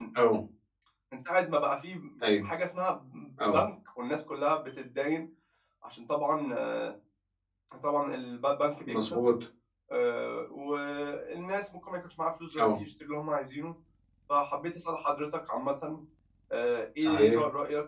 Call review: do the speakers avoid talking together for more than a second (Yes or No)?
Yes